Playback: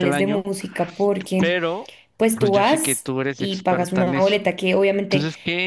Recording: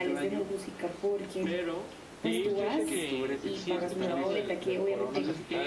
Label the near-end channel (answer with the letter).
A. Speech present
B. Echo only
A